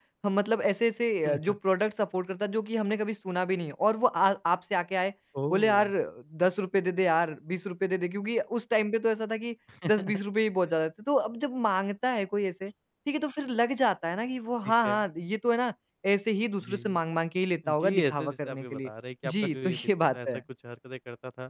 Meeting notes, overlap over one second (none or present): present